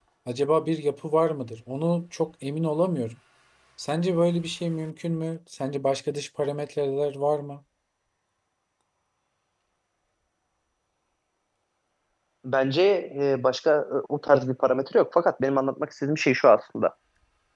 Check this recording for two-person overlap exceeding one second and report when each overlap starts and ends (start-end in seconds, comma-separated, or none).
none